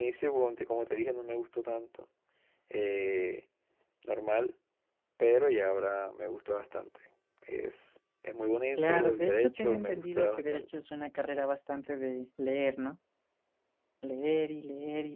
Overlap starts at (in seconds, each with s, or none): 8.7 s